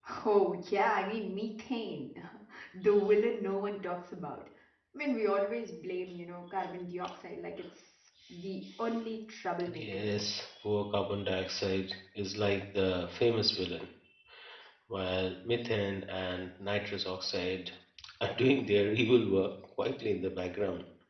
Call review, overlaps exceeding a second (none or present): none